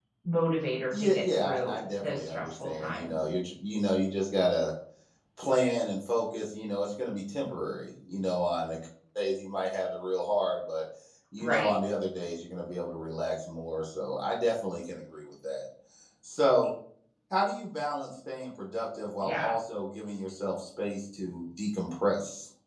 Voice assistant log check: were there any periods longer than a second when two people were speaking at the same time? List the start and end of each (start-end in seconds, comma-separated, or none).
0.9-3.2